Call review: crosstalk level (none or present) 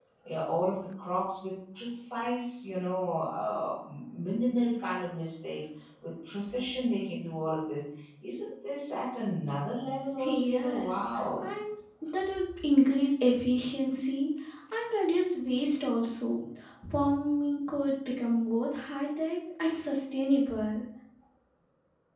present